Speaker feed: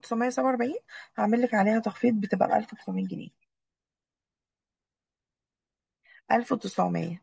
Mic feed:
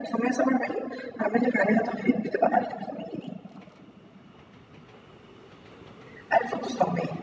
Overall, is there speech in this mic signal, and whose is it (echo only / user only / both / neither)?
echo only